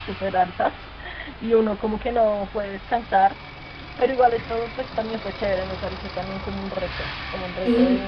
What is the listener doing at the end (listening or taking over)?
listening